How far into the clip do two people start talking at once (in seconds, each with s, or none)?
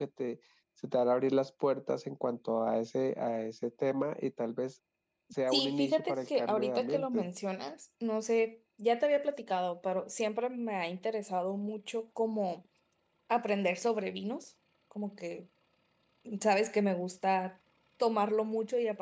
5.5 s